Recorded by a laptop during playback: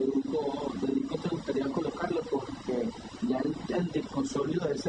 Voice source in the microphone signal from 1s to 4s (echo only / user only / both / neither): echo only